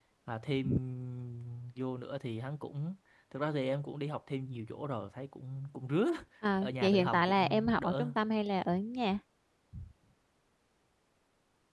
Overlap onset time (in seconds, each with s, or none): 6.6 s